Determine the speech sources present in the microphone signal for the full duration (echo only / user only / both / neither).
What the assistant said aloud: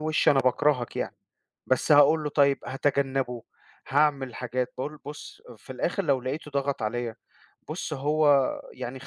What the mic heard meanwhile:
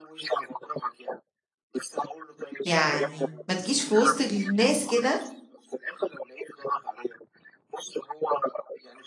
both